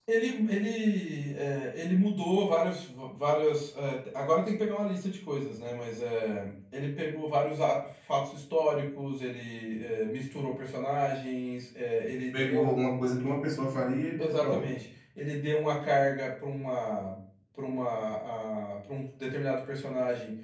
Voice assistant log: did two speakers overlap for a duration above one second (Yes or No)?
No